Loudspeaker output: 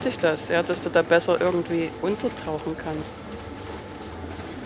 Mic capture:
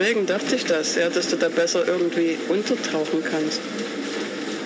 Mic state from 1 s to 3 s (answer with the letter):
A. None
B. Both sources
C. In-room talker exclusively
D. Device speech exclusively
D